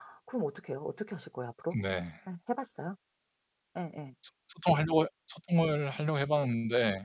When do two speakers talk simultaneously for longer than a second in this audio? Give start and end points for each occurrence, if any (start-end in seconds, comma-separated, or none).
none